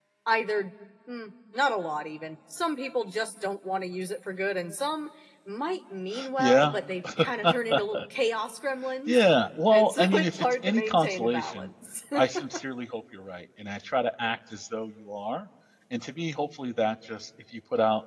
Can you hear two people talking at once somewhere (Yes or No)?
Yes